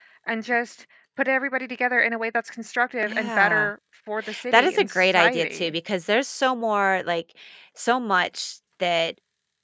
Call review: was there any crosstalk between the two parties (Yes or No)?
Yes